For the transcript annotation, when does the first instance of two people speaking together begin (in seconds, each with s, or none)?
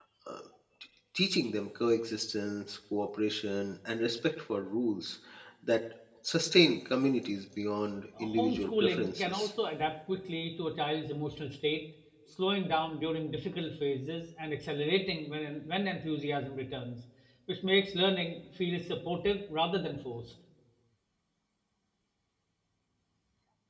8.2 s